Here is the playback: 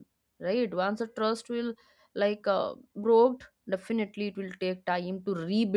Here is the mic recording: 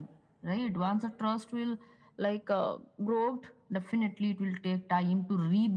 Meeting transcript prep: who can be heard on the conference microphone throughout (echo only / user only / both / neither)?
echo only